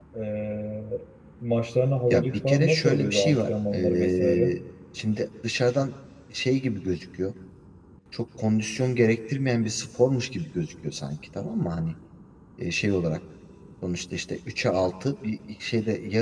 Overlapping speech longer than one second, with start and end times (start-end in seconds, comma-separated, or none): 2.1-4.5